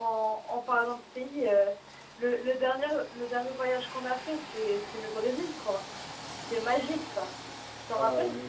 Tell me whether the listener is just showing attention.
No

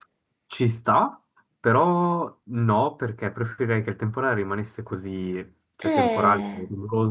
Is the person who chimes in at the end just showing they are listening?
Yes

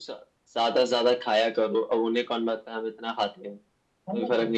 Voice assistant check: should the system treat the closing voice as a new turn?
Yes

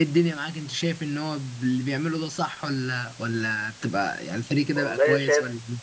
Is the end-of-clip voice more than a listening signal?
Yes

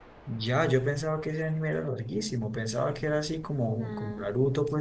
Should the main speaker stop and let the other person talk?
No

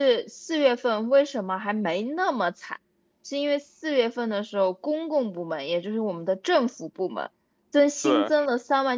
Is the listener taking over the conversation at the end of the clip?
No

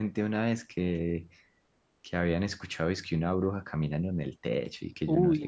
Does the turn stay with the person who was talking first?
No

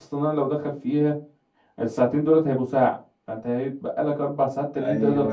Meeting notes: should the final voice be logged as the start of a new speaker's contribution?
Yes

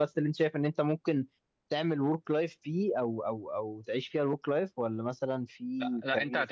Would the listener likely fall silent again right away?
No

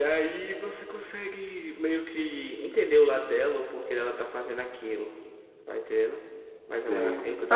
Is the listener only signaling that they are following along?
No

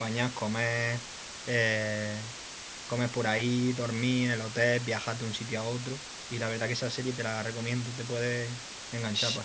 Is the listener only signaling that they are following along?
No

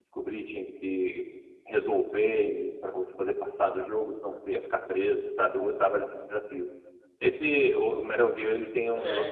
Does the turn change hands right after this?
No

